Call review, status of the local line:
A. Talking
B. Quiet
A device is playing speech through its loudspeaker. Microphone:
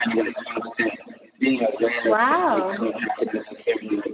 A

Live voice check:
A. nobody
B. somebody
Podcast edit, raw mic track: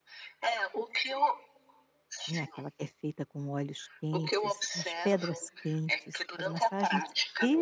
B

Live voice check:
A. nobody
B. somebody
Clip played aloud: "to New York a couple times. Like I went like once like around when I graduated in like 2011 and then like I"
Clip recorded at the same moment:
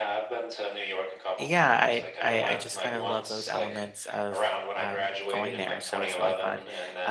B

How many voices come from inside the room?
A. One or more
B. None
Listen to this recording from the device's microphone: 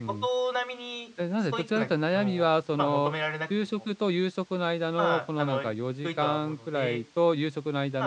A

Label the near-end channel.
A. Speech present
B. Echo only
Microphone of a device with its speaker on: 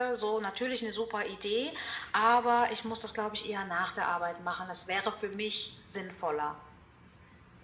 B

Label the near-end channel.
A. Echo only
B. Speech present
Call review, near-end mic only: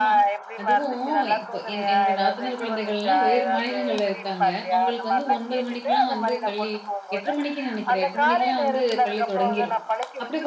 B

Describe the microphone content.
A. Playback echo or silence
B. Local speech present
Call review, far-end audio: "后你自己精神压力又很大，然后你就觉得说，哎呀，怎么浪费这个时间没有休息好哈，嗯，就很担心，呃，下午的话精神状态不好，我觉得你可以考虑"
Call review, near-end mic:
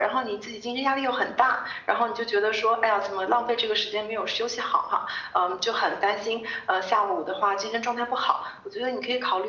A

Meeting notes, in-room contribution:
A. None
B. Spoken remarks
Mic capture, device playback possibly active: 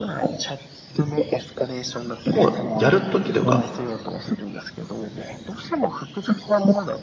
B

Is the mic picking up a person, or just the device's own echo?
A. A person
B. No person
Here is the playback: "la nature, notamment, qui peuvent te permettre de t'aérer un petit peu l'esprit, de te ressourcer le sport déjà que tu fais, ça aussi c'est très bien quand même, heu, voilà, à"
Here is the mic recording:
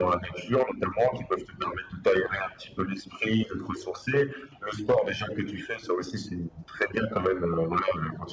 B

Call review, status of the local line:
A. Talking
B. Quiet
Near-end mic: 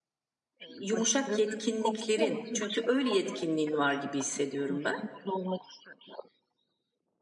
A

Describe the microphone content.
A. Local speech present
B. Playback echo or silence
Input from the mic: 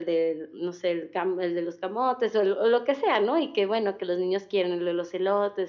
B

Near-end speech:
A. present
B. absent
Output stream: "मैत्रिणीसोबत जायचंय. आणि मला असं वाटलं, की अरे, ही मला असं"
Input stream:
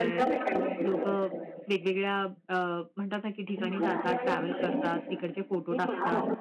A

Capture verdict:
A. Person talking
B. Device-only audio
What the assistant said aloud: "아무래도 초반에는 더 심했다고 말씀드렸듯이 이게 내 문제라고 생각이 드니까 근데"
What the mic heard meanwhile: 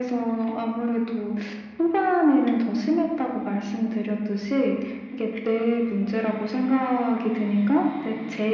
B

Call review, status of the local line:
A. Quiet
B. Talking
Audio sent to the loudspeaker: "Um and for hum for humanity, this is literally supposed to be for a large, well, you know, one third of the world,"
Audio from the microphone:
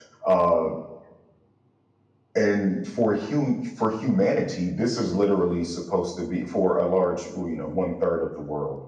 A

